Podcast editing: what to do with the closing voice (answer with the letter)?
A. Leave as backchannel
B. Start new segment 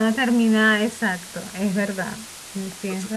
B